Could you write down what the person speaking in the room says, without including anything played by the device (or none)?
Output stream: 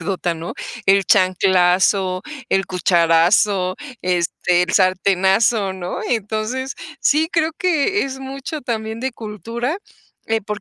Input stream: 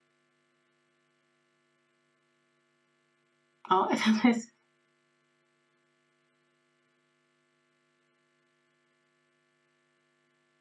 ¿no? entonces,